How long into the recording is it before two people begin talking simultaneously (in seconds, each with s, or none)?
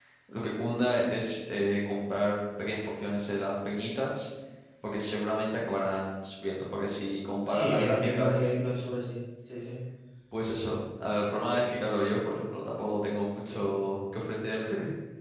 7.5 s